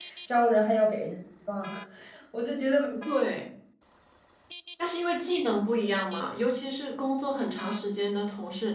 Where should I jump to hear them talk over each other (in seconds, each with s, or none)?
none